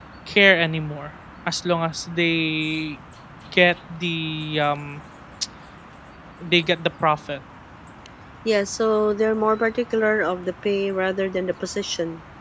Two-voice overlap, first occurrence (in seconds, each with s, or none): none